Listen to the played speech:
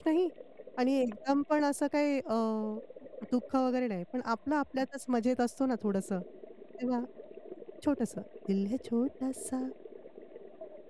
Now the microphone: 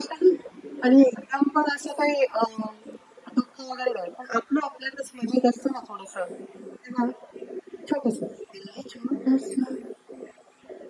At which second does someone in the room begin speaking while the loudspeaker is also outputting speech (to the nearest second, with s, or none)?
none